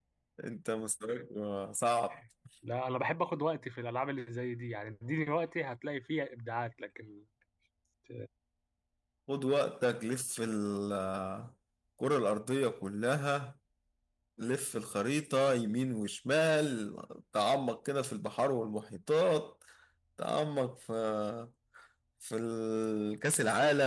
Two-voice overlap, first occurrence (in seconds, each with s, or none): none